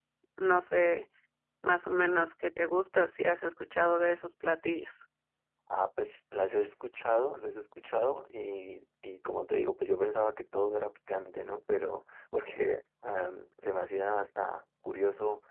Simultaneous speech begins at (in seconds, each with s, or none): none